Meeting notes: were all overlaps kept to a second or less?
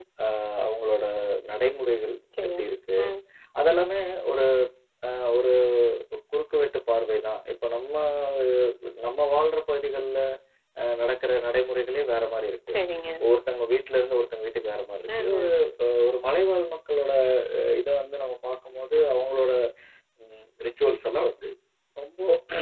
Yes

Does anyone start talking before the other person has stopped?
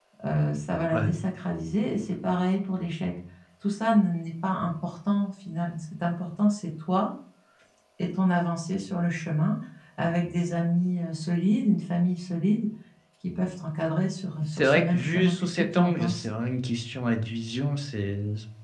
Yes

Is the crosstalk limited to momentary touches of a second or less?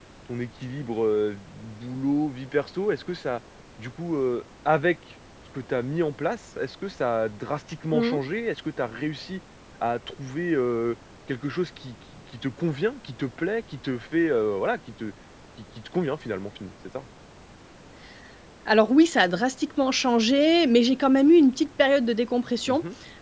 Yes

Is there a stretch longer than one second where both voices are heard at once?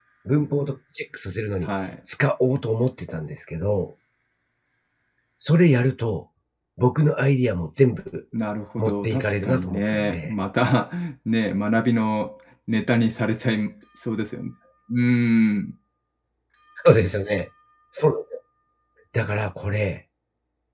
Yes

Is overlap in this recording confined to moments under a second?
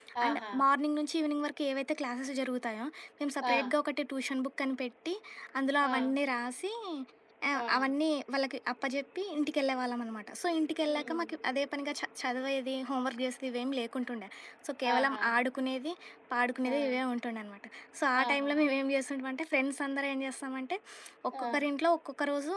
Yes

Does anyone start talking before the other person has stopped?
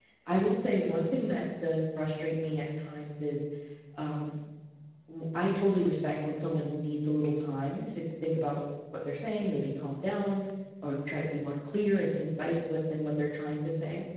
No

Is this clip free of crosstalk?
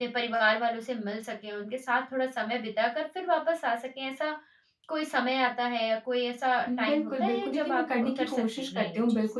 No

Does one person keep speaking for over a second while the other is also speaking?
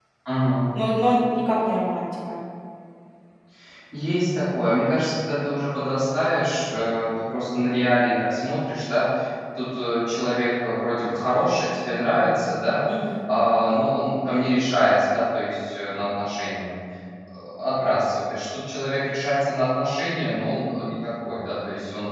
No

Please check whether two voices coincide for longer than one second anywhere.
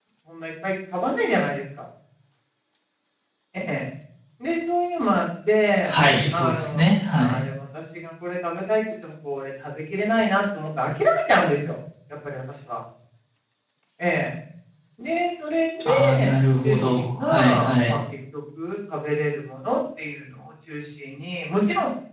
Yes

